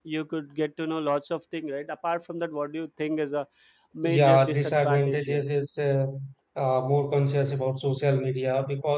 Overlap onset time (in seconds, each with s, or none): 4.0 s